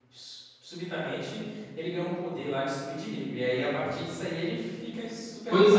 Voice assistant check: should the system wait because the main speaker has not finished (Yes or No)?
No